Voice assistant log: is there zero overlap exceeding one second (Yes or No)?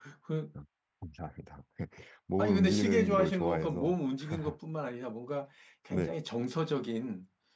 No